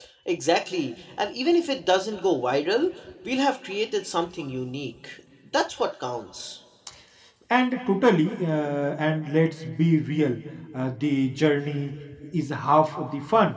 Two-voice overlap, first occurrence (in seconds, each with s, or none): none